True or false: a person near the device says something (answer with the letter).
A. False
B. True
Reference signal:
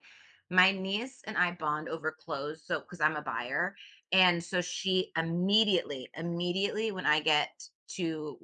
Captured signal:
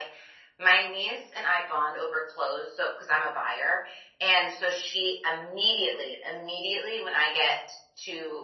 A